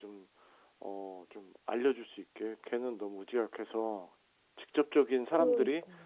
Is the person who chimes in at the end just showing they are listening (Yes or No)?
Yes